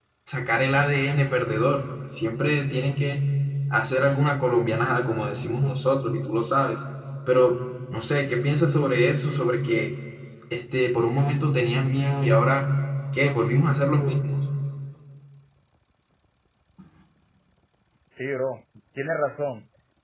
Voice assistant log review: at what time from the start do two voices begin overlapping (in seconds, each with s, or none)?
none